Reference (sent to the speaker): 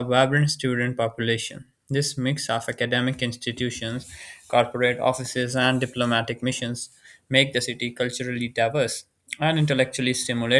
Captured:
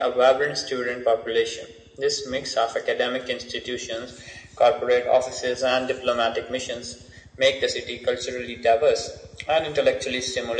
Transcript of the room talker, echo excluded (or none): none